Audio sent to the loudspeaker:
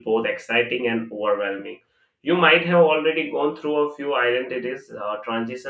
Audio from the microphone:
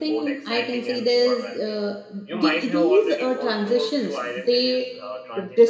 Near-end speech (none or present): present